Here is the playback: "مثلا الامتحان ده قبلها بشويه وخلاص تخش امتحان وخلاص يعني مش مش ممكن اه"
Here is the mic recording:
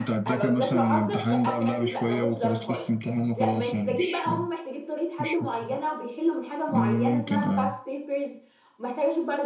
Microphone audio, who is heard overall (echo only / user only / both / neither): both